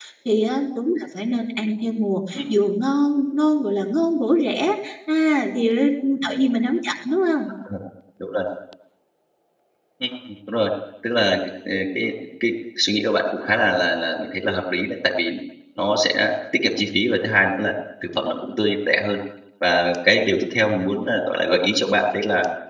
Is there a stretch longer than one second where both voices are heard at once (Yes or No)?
No